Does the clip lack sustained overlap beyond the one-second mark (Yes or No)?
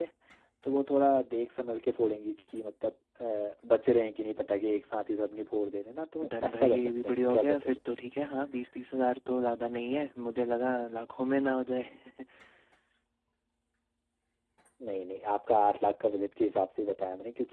No